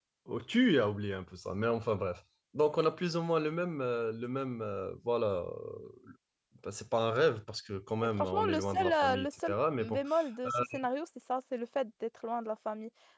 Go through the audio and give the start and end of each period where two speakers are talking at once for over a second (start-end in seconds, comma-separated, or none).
8.0-10.0